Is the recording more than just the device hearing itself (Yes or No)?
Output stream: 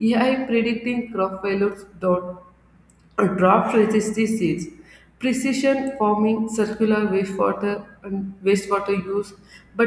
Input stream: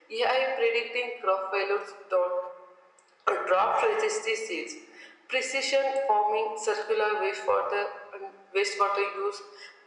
No